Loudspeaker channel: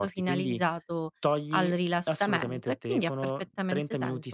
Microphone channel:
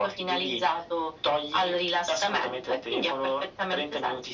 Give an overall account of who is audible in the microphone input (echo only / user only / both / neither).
echo only